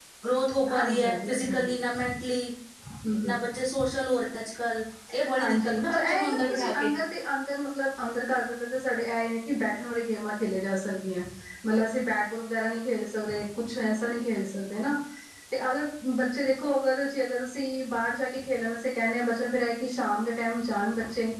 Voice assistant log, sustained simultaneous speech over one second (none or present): present